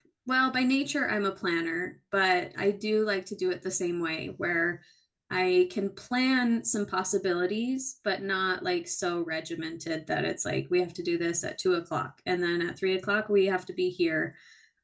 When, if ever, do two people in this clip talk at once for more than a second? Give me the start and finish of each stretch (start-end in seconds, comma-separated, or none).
none